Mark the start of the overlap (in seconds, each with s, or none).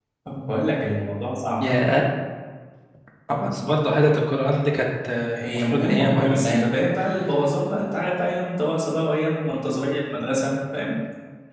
5.3 s